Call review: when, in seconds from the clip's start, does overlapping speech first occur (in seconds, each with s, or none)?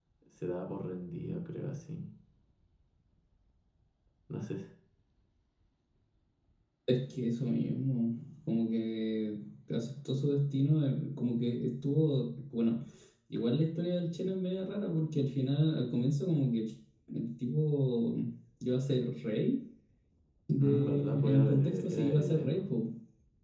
20.6 s